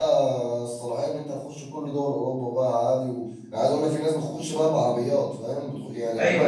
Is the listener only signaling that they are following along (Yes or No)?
No